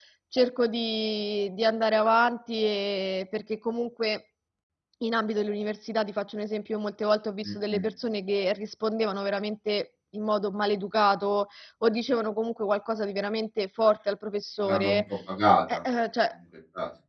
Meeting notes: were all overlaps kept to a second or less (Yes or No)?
Yes